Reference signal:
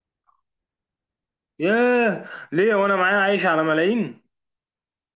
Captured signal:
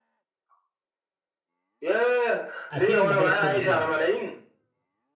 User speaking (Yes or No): Yes